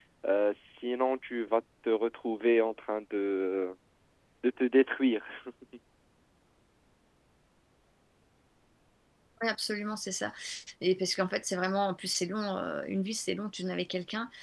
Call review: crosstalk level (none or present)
none